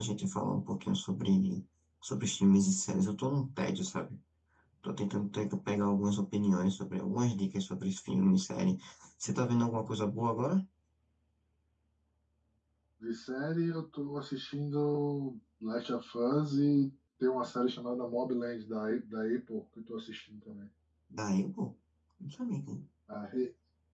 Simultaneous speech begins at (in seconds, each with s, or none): none